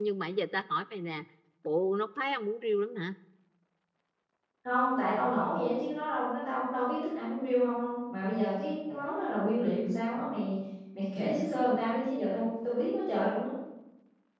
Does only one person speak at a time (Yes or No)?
Yes